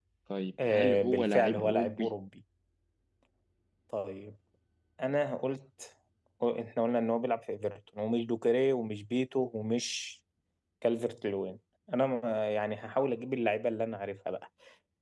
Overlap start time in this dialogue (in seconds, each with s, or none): 0.7 s